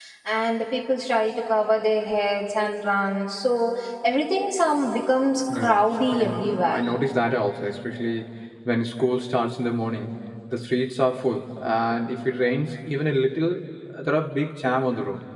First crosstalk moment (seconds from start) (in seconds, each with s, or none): 5.5 s